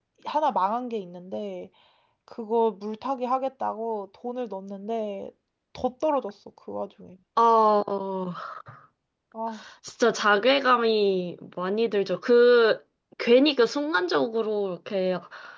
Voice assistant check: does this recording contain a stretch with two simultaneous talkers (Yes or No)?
No